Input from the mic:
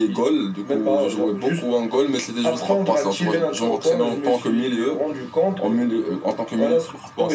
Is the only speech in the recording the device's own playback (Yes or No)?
Yes